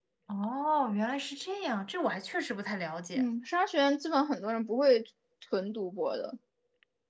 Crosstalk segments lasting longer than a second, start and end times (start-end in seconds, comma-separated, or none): none